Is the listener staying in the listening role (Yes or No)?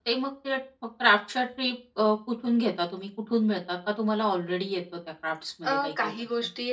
No